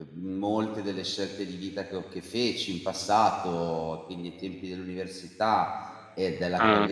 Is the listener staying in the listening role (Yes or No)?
Yes